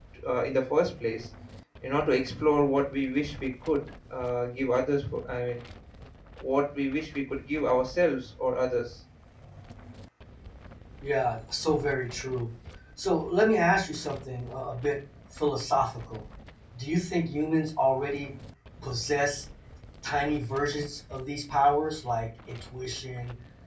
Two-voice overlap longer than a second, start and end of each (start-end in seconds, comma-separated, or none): none